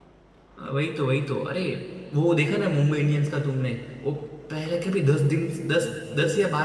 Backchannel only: Yes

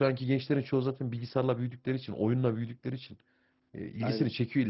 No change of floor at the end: Yes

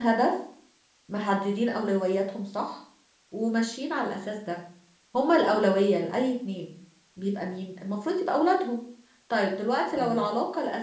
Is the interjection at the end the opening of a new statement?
No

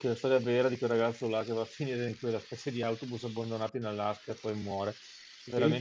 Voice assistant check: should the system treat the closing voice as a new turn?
Yes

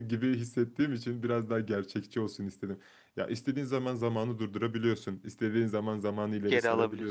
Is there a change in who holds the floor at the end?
No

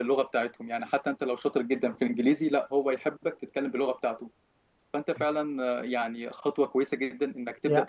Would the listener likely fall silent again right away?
Yes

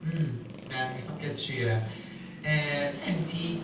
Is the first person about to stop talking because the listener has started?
No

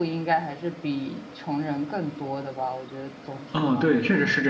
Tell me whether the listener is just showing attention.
No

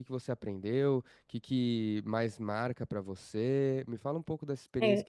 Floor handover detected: No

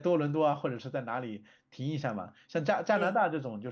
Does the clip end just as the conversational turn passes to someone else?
No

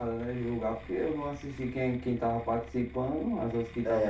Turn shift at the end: Yes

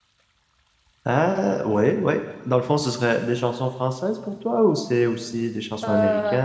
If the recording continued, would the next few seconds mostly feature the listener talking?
Yes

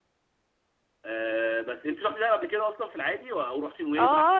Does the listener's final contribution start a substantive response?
Yes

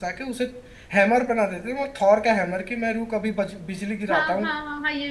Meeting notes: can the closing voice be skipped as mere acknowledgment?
No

